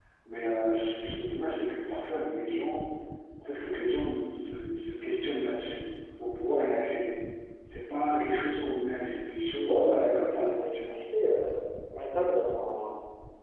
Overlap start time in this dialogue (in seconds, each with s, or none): 9.6 s